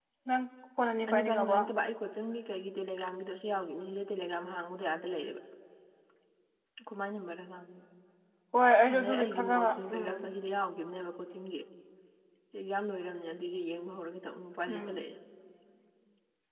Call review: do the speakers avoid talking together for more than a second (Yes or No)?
No